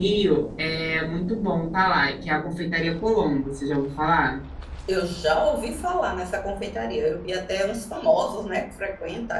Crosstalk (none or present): none